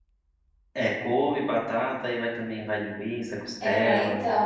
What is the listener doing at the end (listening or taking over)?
taking over